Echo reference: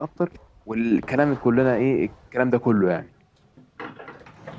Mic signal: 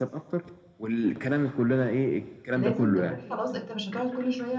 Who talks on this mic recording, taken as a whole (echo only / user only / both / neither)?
both